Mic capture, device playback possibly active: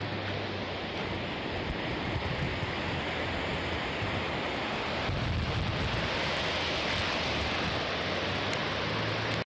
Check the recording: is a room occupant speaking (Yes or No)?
No